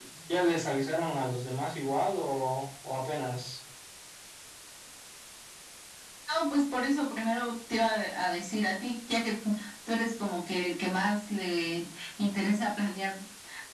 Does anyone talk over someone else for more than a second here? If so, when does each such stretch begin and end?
none

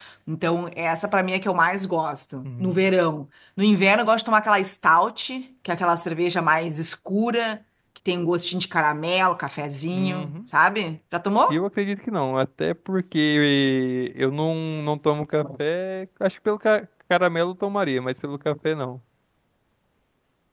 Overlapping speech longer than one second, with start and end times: none

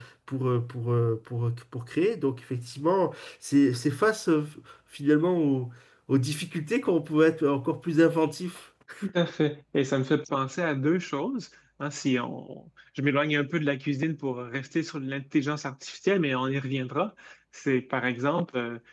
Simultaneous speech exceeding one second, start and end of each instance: none

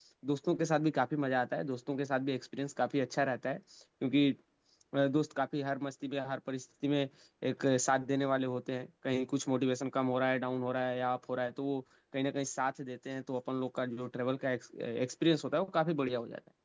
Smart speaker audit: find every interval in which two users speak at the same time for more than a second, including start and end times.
none

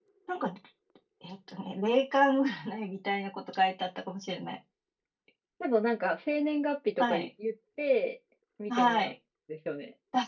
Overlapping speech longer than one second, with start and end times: none

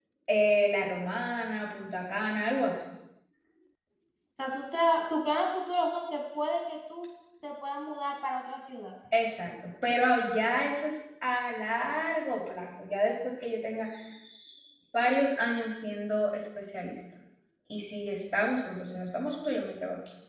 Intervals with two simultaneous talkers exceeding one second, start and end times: none

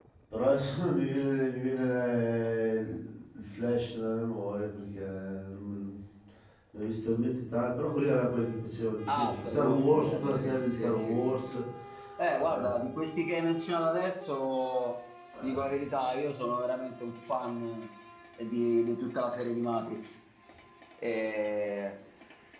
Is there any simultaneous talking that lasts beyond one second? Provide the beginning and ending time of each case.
9.2-11.5

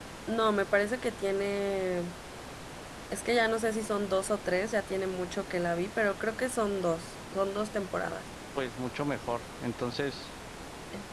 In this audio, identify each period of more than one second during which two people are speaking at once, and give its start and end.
none

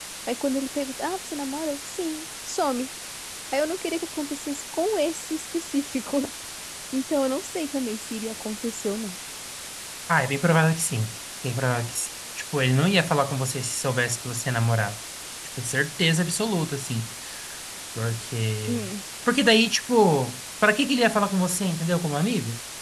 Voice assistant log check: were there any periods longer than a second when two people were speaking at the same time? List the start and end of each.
none

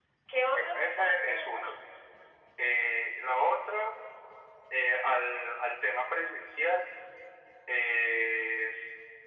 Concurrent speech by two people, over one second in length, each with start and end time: 0.5-1.8

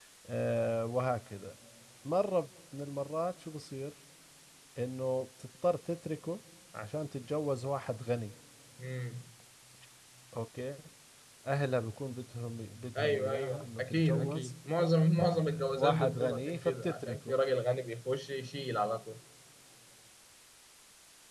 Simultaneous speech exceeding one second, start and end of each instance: 13.0-14.5, 15.2-17.4

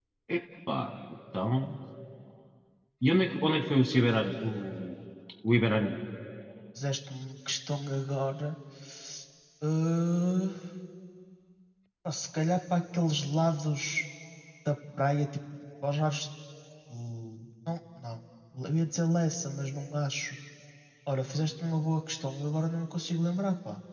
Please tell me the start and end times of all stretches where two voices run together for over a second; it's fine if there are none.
none

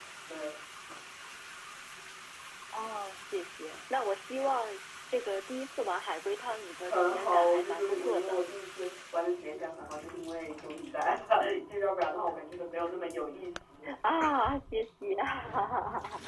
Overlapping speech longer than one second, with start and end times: 6.8-8.4

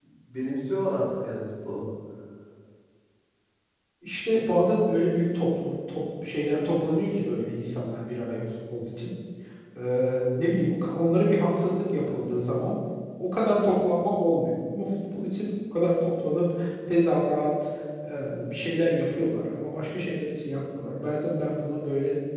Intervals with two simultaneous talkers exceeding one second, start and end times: none

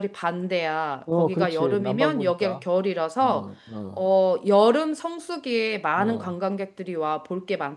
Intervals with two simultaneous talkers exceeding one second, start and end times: 1.2-2.6

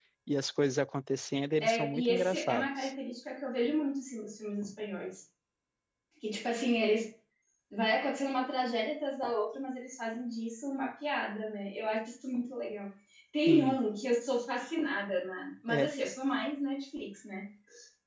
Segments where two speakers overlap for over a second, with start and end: 1.6-2.9

